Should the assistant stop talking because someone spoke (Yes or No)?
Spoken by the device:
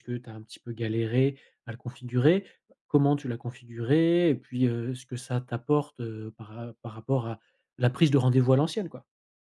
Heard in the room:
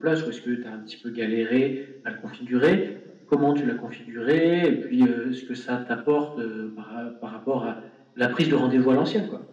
No